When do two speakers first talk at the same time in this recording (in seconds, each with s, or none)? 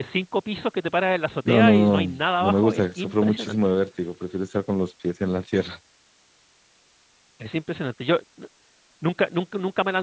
1.4 s